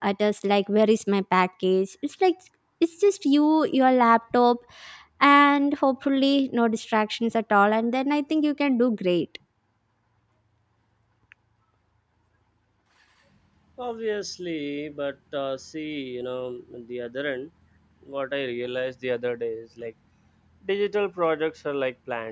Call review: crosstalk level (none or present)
none